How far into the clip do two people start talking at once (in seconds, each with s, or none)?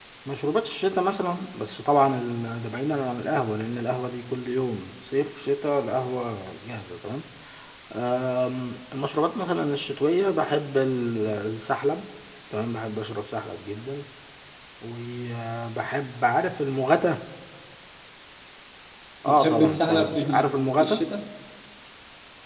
19.2 s